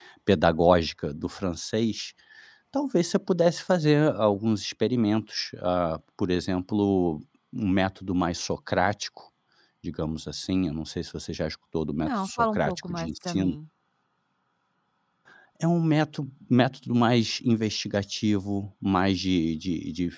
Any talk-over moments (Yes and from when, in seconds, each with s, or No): Yes, from 12.0 s